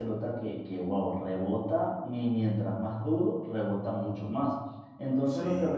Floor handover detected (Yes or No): No